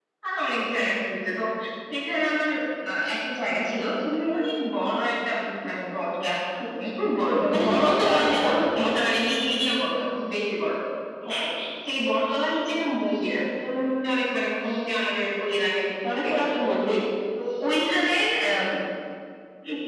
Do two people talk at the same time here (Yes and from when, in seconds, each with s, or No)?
Yes, from 7.5 s